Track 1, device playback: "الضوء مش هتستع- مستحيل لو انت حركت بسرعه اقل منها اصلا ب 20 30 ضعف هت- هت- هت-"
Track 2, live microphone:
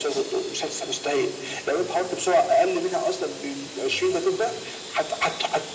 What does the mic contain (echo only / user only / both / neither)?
echo only